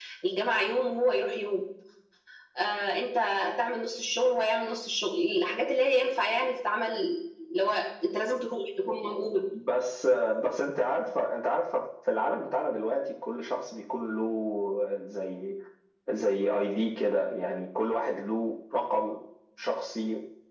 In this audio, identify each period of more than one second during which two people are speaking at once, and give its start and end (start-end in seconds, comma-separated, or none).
none